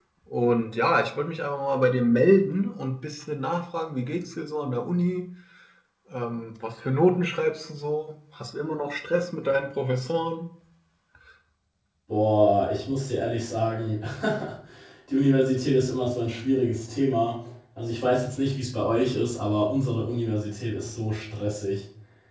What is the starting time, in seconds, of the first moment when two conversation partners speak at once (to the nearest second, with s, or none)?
none